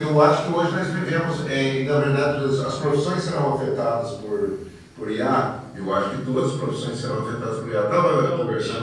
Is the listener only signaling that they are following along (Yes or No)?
Yes